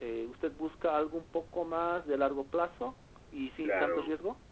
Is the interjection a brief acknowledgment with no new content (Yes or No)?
No